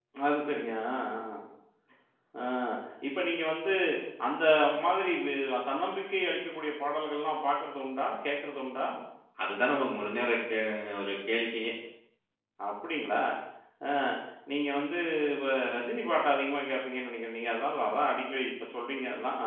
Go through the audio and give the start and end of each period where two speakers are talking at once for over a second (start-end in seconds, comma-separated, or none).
none